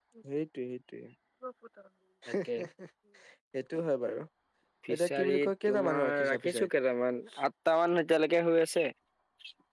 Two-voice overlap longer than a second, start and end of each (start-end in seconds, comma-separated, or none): 5.2-6.7